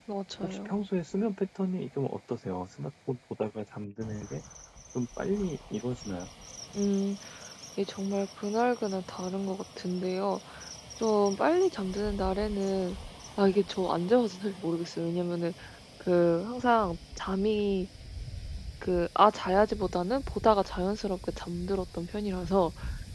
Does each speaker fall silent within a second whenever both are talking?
Yes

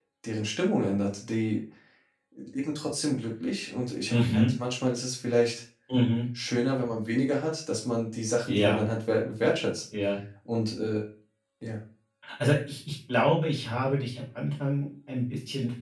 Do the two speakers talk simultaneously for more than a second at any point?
No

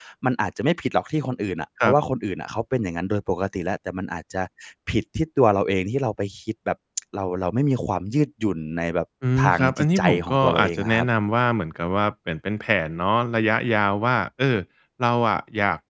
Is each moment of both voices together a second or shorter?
No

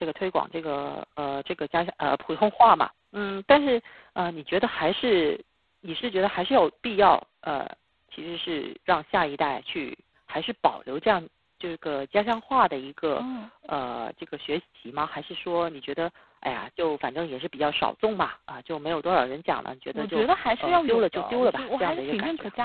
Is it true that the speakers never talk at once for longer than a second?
No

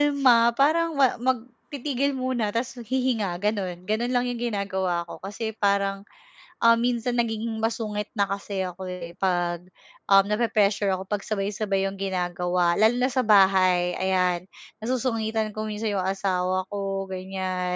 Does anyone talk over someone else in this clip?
No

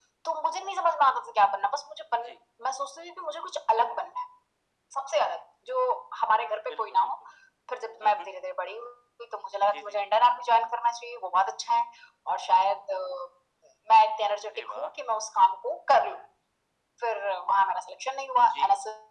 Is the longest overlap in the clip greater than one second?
No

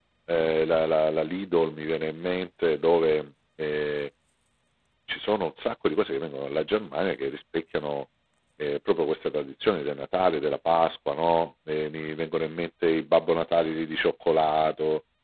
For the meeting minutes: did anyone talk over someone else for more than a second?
No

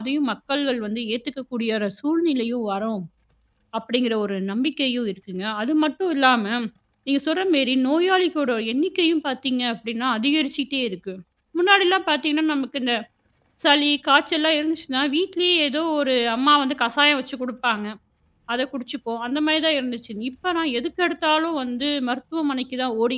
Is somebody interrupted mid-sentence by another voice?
No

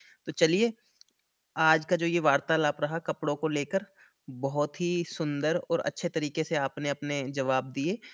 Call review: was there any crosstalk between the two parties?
No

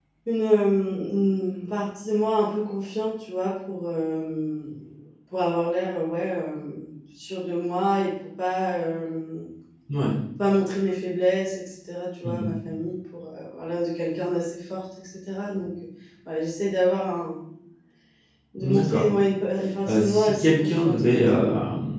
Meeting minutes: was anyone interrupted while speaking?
Yes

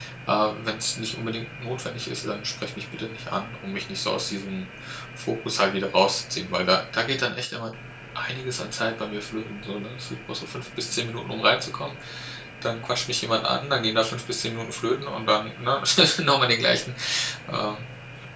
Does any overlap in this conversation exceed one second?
No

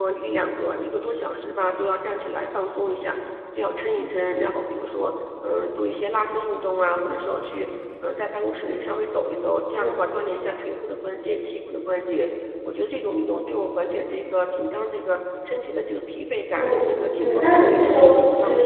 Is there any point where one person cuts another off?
Yes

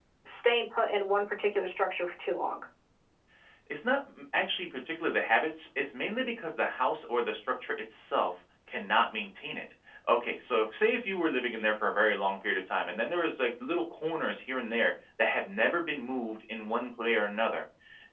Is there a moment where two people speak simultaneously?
No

